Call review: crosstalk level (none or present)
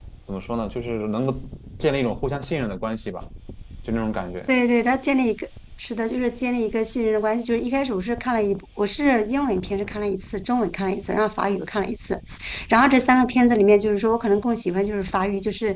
none